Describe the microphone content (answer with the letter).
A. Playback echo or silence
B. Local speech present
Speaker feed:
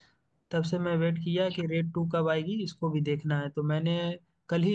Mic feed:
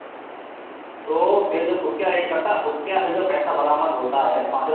B